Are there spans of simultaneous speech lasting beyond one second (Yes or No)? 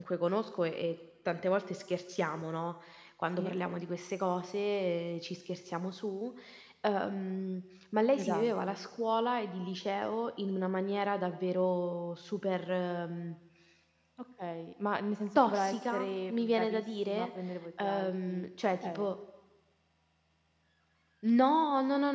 Yes